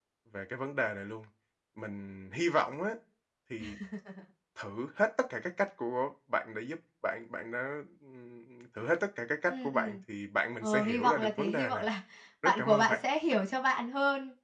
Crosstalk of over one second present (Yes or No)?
Yes